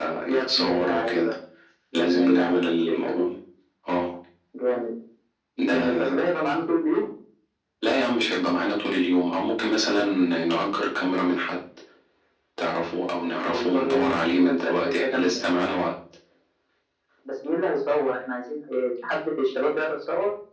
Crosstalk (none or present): present